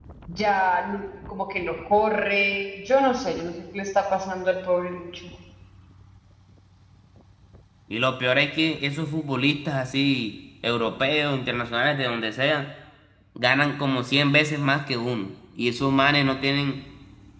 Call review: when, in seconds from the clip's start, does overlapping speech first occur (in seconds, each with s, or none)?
none